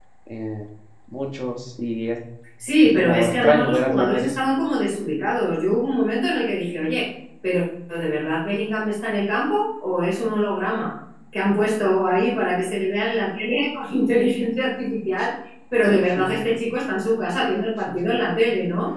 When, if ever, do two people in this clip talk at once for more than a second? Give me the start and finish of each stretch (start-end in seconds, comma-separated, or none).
3.0-4.3